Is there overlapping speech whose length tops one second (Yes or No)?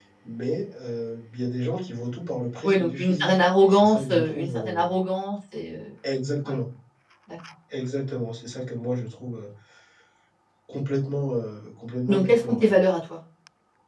Yes